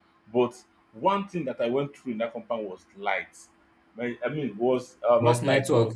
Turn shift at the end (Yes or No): No